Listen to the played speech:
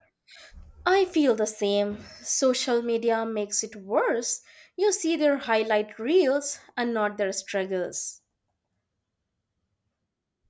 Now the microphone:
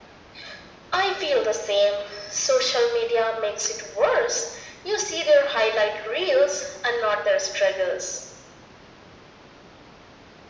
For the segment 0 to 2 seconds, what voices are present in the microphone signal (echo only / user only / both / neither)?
echo only